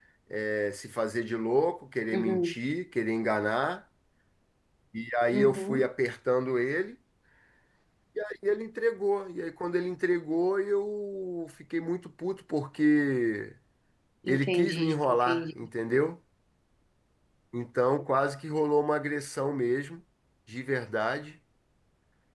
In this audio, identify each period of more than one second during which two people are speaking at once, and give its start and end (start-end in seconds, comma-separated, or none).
14.3-15.5